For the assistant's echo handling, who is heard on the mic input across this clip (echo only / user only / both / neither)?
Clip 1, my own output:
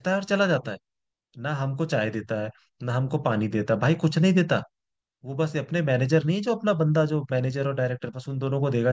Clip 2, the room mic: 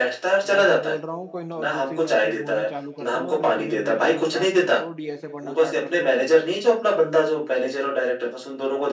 both